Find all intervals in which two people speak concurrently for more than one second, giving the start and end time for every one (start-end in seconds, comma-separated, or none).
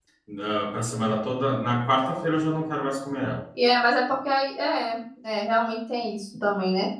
none